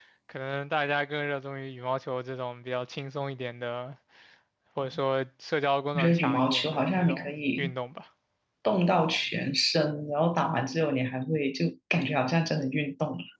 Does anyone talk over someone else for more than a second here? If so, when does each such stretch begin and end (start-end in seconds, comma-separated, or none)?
6.0-7.7